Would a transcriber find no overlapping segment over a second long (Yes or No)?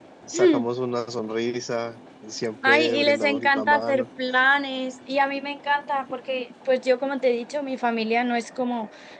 No